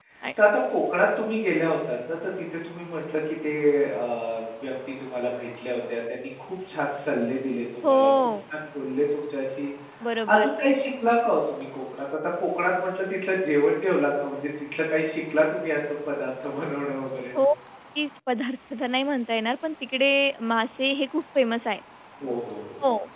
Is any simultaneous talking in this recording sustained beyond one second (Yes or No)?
No